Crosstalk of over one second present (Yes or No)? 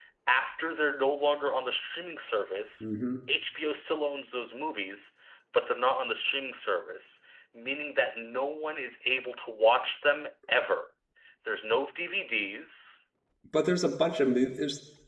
No